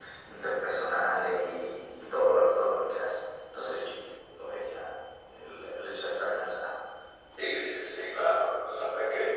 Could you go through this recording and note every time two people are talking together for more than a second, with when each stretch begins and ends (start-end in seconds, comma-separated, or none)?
none